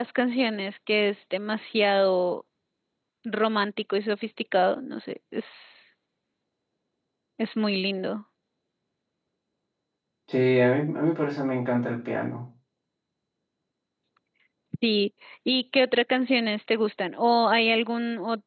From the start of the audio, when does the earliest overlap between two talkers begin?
none

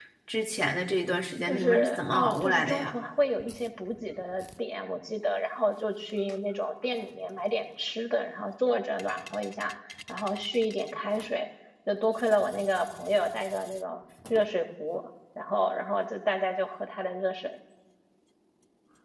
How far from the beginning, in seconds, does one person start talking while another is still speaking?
1.3 s

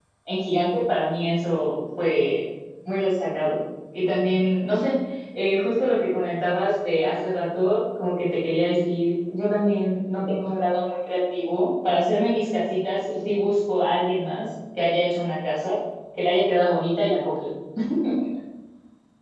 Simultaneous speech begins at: none

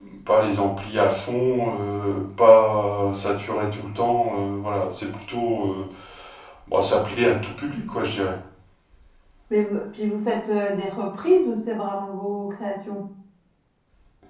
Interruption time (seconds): none

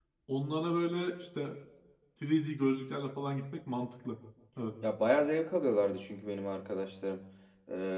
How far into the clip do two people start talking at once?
none

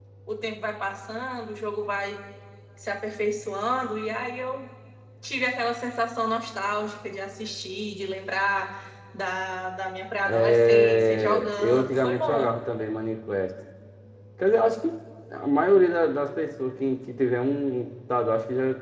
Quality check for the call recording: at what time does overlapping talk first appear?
10.3 s

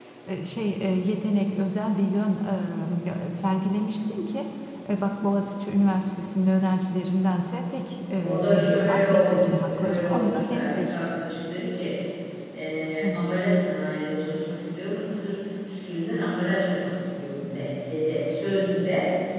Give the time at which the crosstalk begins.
8.2 s

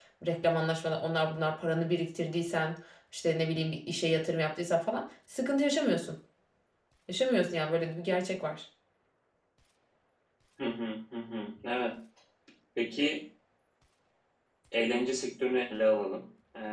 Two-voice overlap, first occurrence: none

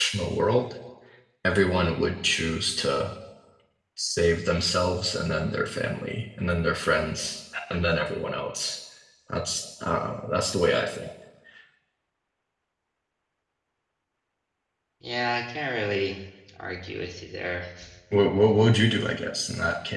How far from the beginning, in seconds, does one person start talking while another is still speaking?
none

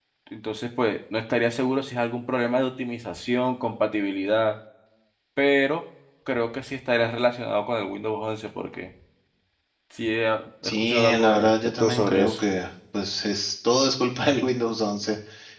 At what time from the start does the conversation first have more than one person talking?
10.6 s

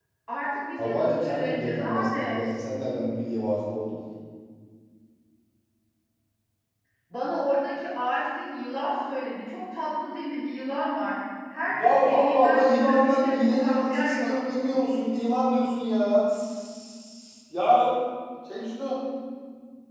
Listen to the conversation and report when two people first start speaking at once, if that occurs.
0.8 s

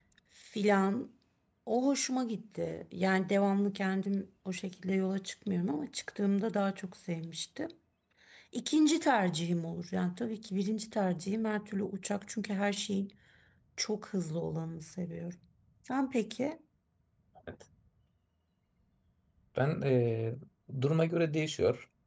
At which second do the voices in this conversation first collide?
none

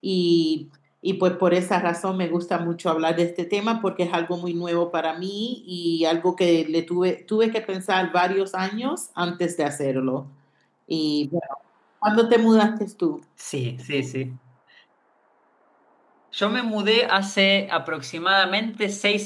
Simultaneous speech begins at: none

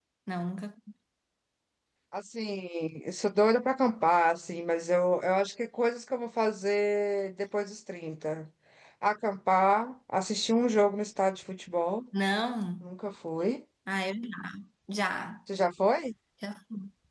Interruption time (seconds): none

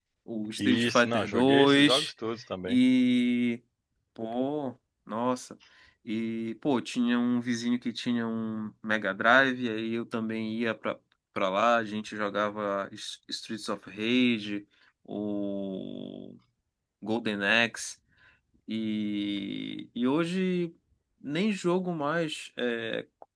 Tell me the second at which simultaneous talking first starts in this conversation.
0.6 s

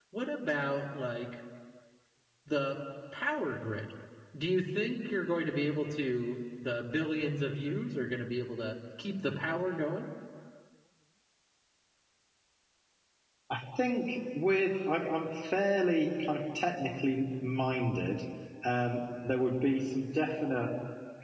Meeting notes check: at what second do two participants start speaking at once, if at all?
none

